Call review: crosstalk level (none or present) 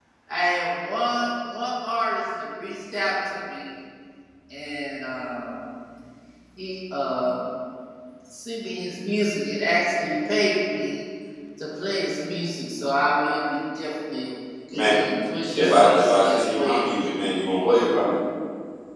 present